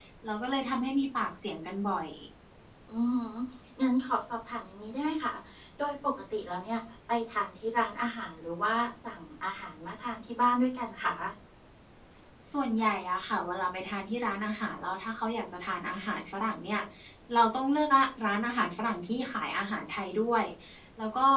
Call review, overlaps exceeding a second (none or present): none